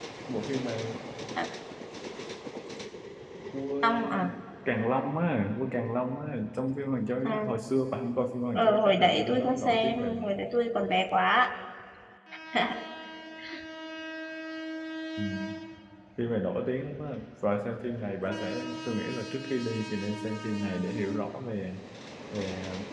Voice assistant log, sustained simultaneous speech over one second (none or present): present